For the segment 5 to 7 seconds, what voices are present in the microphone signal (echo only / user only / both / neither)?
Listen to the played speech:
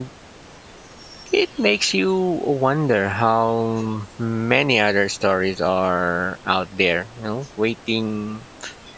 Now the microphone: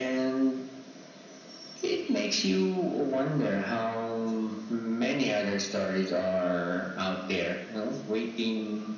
echo only